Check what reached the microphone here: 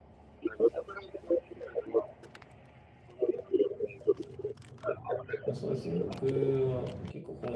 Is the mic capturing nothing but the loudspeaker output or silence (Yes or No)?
No